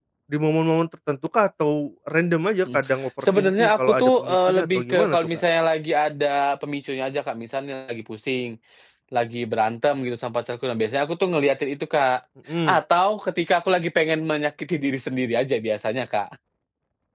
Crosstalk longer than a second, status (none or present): present